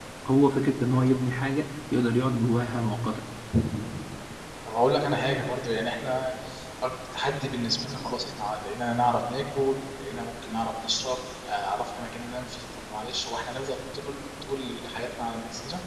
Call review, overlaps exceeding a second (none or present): none